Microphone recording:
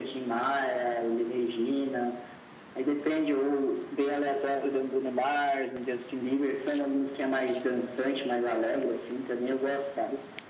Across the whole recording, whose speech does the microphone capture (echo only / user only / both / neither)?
echo only